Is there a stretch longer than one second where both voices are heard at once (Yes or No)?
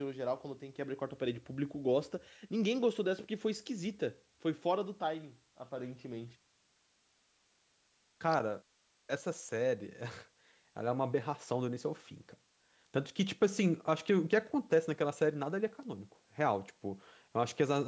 No